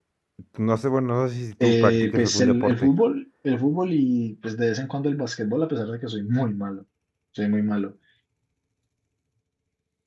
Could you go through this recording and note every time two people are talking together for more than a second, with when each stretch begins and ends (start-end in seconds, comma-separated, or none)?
1.6-2.9